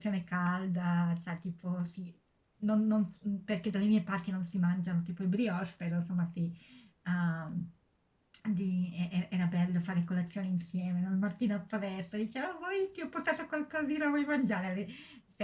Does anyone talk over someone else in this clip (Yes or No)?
No